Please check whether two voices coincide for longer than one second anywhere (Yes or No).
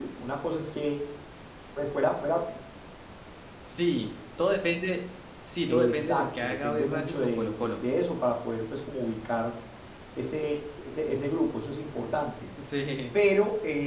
Yes